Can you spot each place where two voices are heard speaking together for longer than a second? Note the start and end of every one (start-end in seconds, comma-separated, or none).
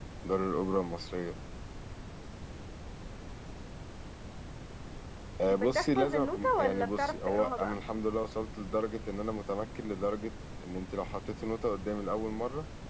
5.5-7.8